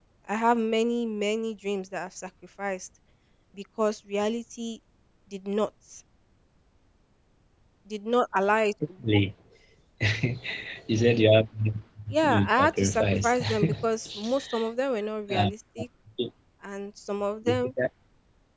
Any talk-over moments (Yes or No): Yes